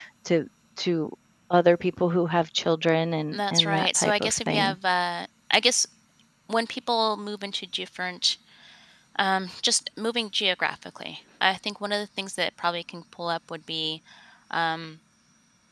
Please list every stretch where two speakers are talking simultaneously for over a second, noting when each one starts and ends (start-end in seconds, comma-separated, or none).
3.3-4.8